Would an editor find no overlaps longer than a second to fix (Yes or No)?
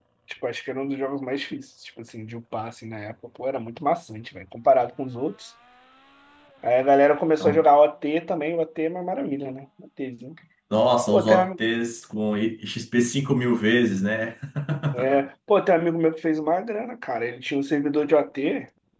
Yes